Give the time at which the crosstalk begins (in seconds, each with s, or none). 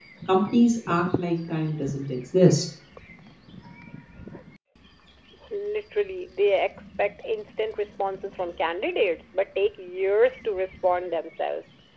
none